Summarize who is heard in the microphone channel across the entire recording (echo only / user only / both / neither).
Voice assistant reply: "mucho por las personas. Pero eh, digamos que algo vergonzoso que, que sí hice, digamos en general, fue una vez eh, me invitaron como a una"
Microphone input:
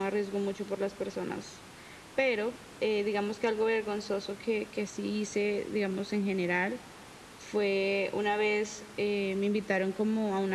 echo only